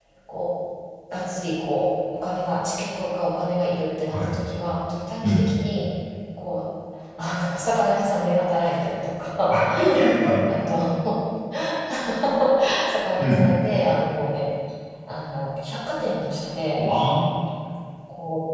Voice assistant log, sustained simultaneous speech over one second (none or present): none